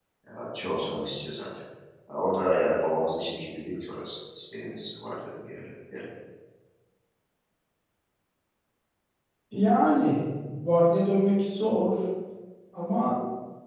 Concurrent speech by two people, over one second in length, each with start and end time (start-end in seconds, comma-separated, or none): none